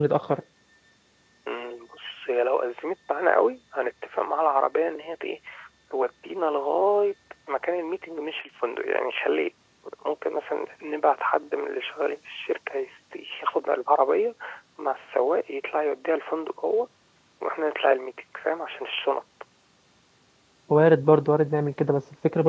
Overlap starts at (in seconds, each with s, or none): none